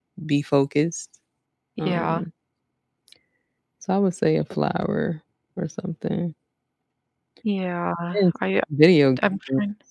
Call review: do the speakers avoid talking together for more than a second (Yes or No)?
Yes